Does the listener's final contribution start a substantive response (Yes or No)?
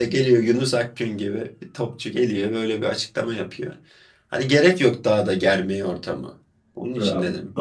Yes